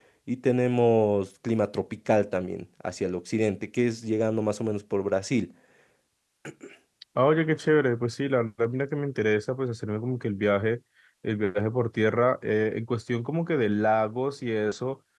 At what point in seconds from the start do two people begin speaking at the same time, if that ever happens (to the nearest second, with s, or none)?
none